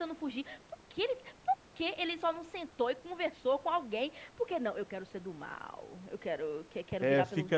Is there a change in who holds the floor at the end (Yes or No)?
Yes